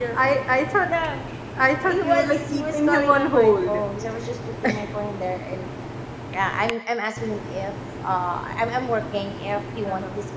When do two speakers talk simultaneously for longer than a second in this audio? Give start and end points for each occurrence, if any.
1.9-3.8

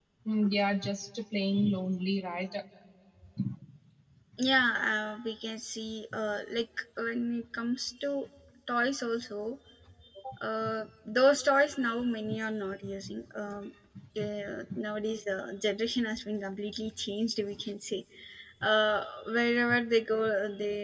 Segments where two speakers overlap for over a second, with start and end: none

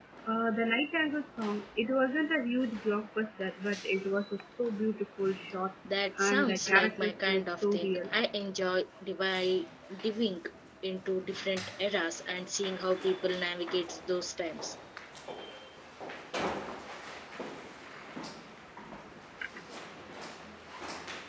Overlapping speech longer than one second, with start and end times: 6.2-8.1

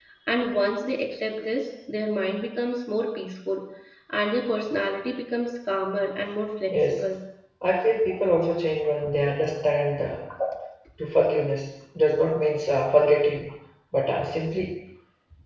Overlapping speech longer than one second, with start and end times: none

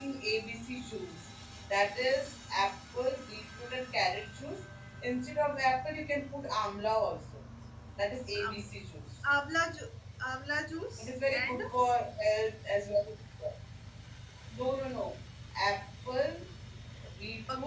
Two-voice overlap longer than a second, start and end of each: none

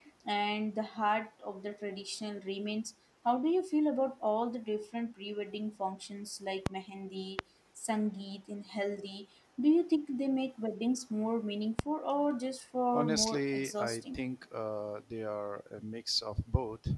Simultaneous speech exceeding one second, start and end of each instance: 12.9-14.2

